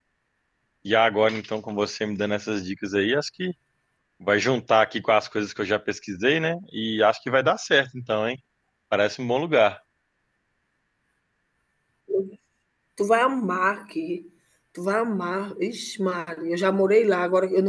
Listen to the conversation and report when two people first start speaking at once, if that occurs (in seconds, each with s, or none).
none